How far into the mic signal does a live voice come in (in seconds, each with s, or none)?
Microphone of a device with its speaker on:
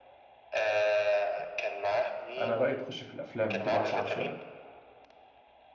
2.4 s